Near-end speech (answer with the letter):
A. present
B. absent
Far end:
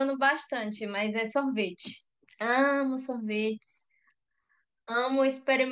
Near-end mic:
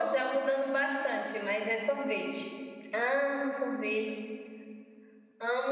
B